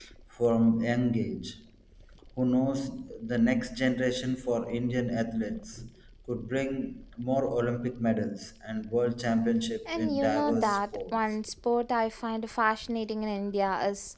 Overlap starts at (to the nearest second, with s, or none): 10 s